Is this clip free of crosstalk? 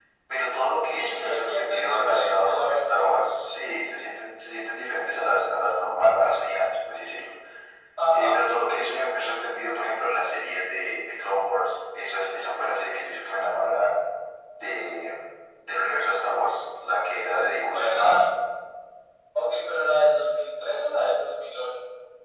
No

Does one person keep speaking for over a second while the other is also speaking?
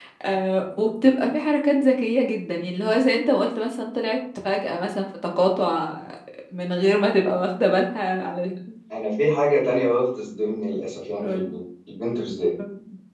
No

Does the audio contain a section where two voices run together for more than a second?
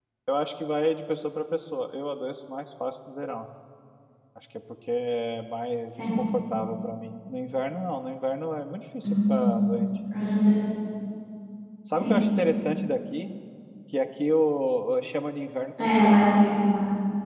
No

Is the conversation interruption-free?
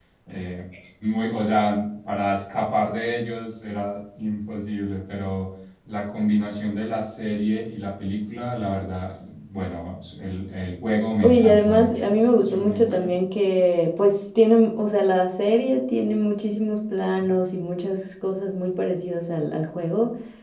No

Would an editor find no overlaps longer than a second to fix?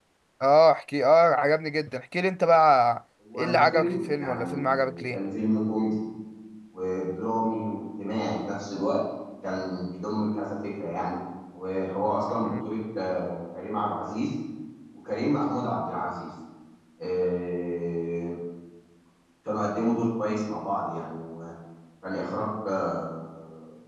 No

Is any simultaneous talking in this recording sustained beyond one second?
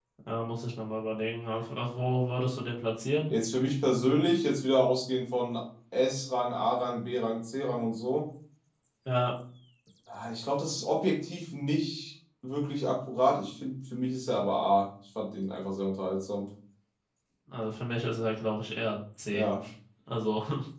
No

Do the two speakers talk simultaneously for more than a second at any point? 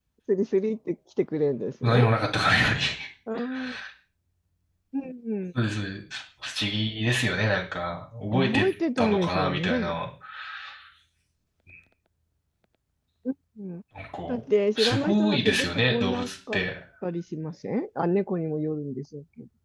Yes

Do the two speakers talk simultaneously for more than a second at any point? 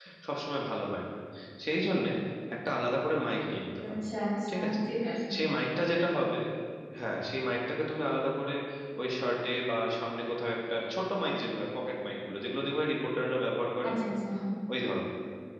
No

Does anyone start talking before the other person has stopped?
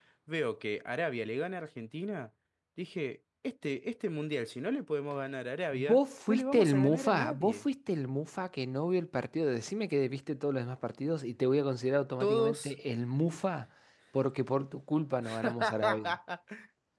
Yes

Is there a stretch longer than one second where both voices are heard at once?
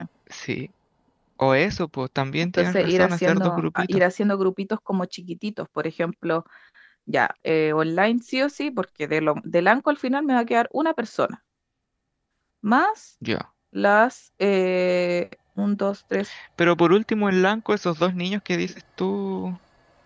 Yes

